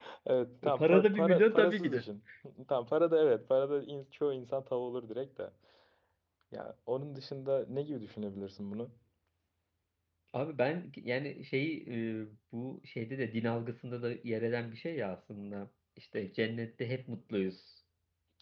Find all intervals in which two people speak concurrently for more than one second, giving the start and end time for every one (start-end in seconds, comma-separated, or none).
0.8-2.0